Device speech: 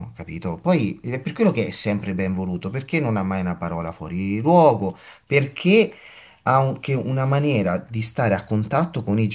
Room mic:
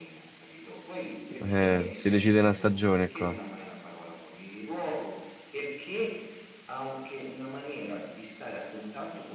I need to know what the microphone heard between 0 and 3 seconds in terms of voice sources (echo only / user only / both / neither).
both